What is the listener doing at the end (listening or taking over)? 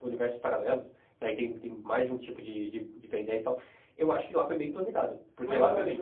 taking over